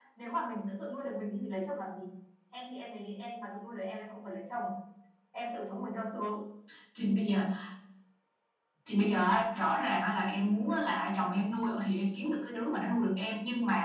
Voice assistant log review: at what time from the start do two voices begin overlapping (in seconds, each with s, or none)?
none